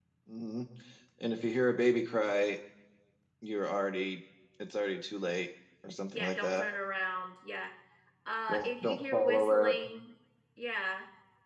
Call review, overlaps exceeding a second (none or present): present